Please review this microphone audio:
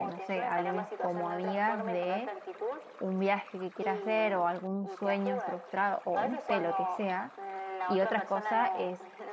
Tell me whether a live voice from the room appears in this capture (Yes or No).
Yes